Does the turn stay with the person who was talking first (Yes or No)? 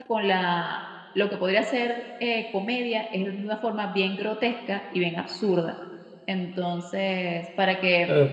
No